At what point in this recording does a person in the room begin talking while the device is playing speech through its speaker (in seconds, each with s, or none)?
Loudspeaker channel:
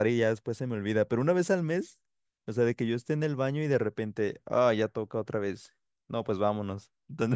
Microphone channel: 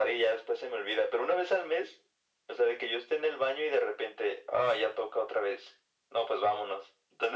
none